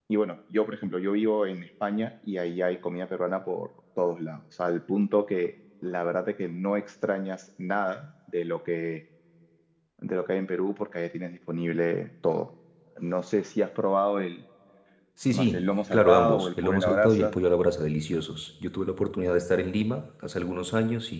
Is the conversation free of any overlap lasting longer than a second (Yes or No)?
No